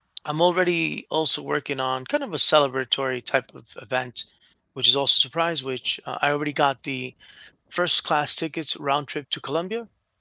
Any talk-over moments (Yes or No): No